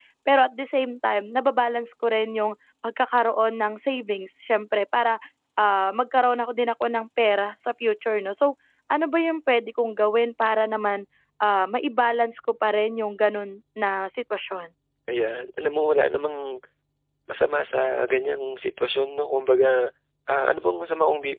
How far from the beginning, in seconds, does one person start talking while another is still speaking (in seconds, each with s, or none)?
none